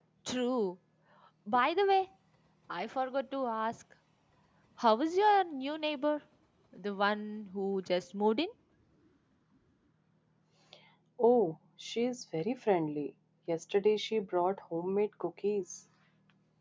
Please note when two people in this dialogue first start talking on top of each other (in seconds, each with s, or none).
none